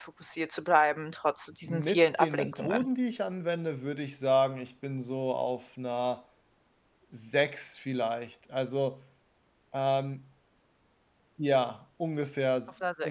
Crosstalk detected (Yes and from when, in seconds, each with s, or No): Yes, from 1.6 s